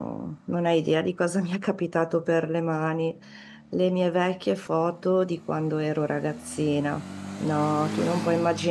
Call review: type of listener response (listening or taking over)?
listening